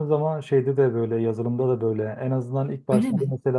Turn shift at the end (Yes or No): No